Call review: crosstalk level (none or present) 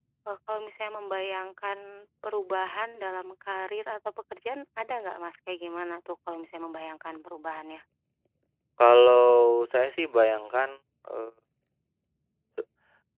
none